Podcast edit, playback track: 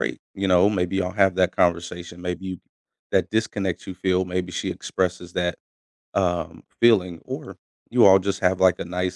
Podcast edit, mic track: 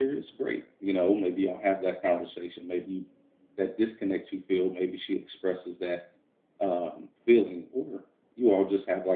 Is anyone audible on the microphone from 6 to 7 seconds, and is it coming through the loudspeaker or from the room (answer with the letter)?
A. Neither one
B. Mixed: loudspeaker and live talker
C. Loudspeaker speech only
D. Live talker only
C